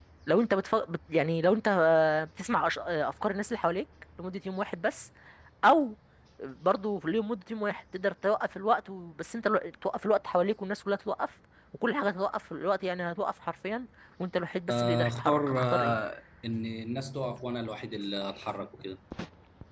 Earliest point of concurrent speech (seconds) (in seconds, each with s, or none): 14.7 s